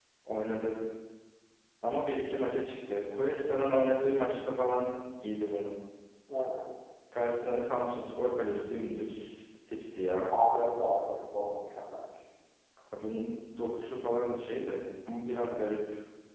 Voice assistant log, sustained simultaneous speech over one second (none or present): none